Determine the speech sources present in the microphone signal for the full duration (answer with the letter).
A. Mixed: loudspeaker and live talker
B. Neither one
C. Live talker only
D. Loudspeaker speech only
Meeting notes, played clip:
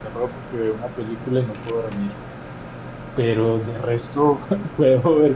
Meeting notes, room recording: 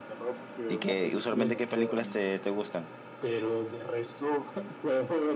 A